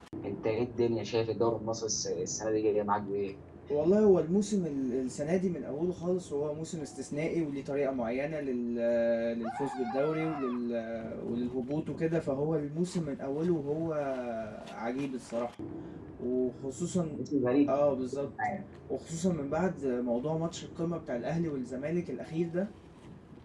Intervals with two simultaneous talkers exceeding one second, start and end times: none

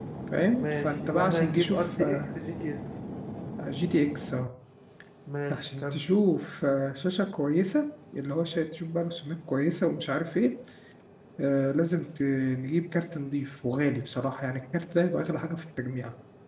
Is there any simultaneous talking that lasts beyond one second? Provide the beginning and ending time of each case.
0.6-2.0

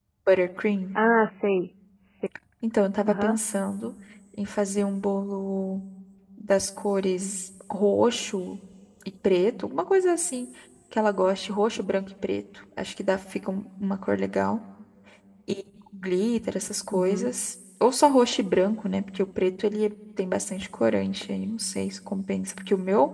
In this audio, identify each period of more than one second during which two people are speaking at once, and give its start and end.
none

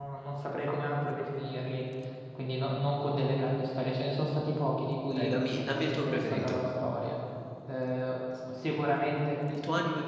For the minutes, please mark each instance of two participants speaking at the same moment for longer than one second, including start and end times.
5.1-6.6

